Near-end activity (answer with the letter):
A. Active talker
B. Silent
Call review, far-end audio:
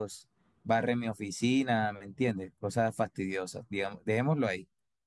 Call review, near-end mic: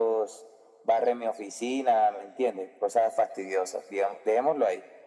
B